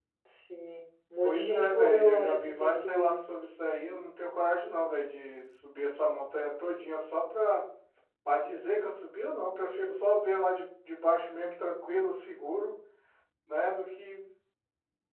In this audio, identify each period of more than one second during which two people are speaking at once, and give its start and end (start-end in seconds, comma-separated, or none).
1.2-3.1